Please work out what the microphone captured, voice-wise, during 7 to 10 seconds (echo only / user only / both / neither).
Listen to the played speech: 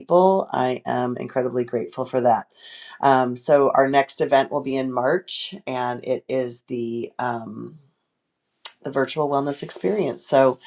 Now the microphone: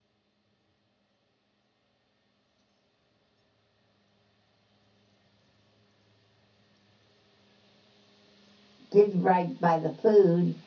user only